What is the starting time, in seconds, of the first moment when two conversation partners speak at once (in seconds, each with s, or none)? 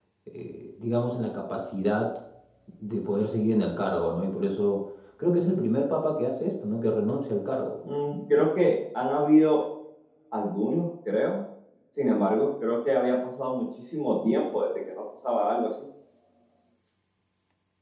none